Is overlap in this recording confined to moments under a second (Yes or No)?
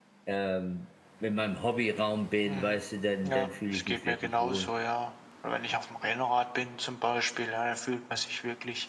No